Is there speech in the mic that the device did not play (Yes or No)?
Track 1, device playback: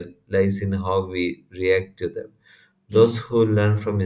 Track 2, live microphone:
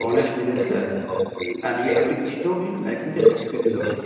Yes